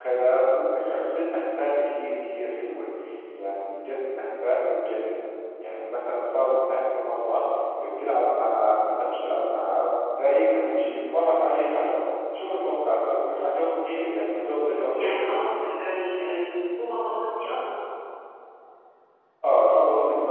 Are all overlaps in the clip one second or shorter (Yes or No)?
Yes